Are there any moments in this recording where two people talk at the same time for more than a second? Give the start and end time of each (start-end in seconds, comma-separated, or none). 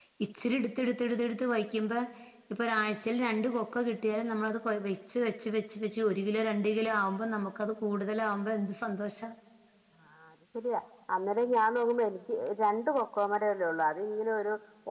none